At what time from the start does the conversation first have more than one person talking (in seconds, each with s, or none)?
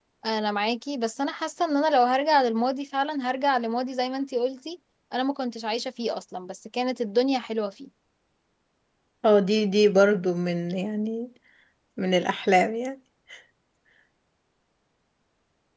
none